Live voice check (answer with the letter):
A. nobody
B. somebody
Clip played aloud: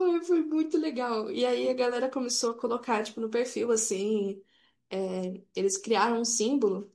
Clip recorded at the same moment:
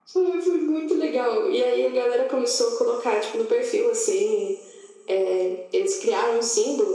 A